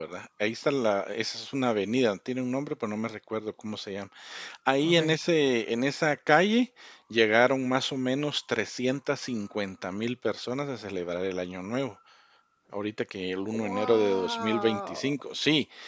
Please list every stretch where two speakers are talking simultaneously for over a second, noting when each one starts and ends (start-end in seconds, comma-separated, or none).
13.5-15.1